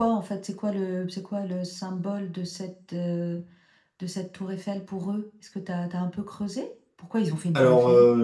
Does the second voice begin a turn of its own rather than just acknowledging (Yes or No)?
Yes